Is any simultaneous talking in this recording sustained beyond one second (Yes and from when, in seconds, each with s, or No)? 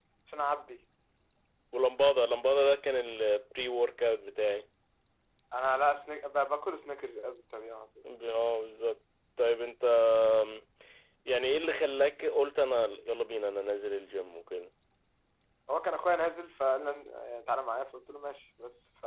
No